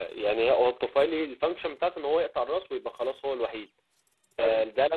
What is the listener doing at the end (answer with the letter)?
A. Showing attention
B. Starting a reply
A